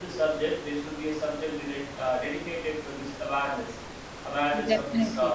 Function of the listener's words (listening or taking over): listening